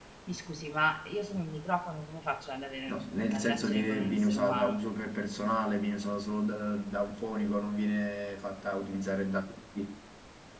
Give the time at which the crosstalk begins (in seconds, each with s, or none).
2.9 s